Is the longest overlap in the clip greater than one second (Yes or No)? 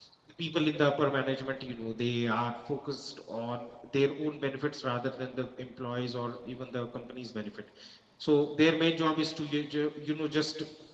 No